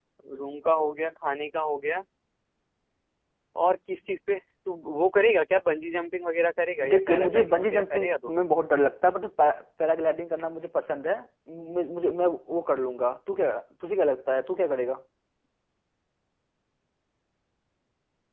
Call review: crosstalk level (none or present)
present